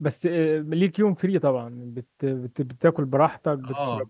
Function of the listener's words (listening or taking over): taking over